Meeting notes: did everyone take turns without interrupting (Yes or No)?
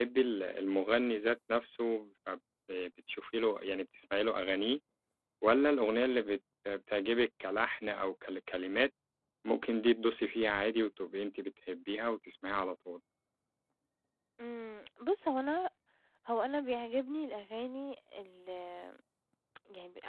Yes